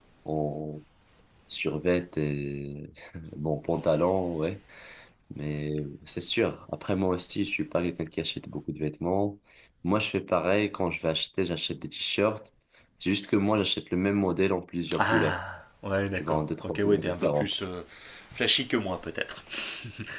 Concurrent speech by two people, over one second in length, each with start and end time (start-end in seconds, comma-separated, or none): 16.1-17.5